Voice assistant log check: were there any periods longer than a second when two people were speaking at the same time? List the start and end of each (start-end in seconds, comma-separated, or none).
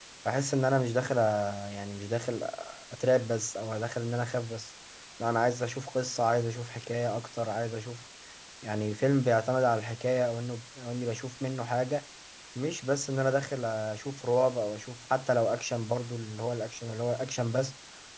none